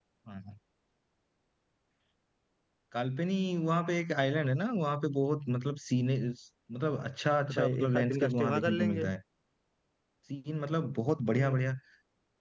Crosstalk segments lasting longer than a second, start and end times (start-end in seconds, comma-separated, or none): 7.5-9.1